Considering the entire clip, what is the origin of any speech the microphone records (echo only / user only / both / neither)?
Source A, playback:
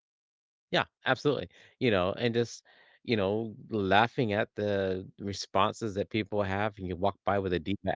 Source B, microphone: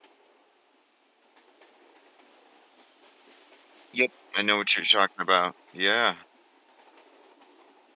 user only